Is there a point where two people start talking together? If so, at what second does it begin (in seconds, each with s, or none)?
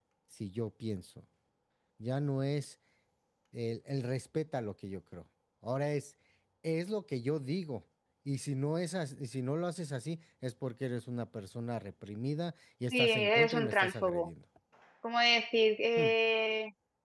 12.9 s